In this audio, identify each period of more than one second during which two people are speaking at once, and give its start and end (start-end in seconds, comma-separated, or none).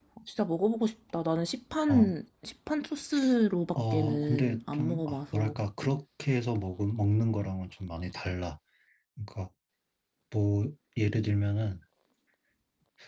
3.9-5.5